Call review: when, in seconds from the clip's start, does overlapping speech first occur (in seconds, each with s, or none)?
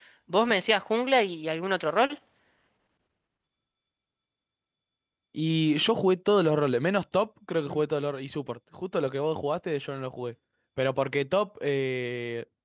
none